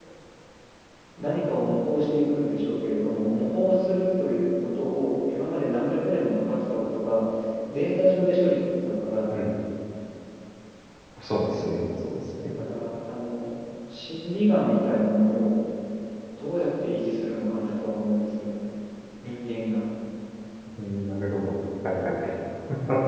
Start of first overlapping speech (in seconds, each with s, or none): none